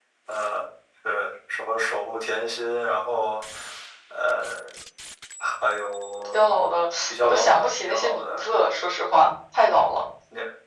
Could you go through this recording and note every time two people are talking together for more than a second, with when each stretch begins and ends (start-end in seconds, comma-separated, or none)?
7.1-8.4